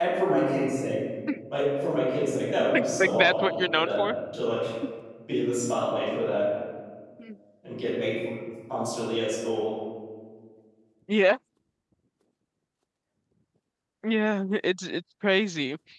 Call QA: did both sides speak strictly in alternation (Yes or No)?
No